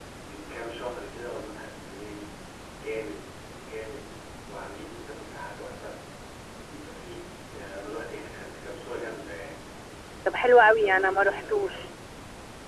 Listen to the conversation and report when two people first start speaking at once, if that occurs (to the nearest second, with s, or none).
10 s